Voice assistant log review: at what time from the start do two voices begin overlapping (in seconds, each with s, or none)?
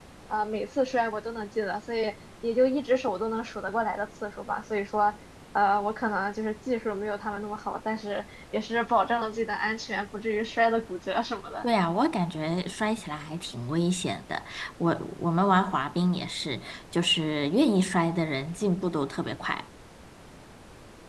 none